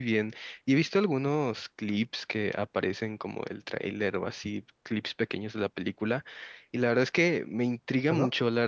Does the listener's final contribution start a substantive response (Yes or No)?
No